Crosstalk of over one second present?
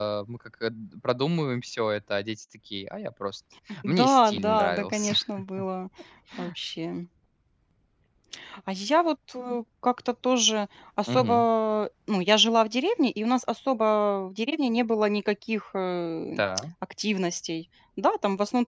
Yes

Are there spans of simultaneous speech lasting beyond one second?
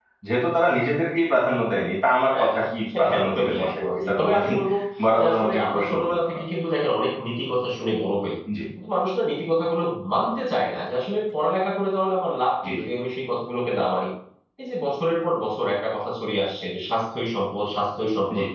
Yes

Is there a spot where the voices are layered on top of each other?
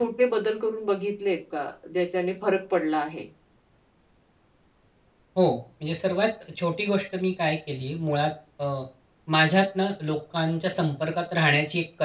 No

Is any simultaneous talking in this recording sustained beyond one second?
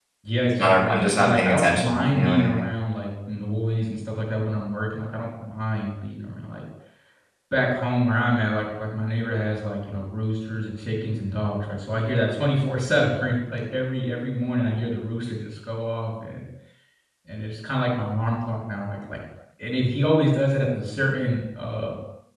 Yes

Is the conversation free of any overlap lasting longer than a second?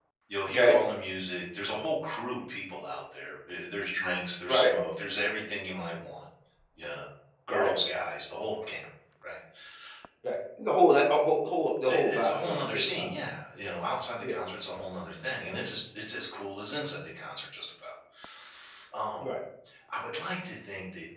No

